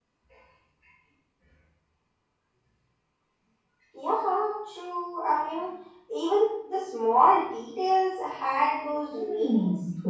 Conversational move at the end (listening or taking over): taking over